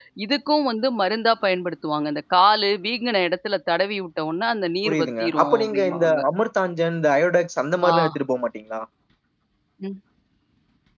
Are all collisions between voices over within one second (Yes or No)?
No